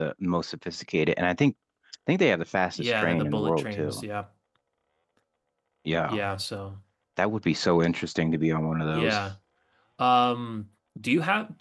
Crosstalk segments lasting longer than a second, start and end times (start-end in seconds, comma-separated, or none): 2.8-4.0